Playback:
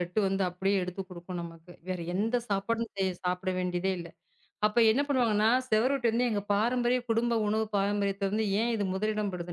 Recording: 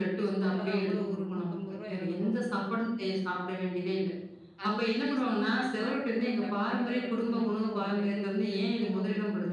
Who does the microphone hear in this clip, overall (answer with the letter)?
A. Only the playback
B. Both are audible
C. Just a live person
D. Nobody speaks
B